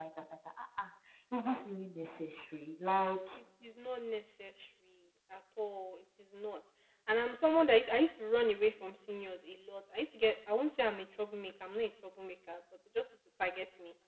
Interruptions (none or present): none